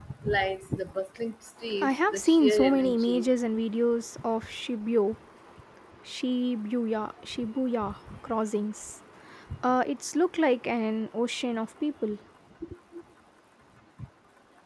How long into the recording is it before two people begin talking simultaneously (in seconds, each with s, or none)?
1.8 s